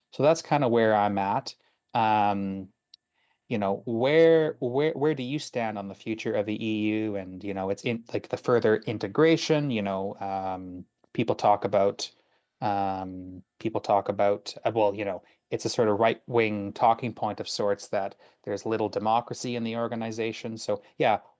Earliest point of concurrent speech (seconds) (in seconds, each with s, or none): none